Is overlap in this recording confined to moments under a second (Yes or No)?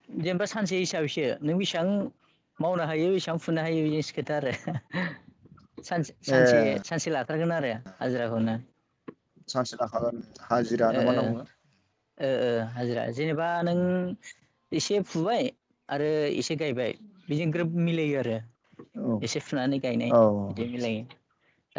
Yes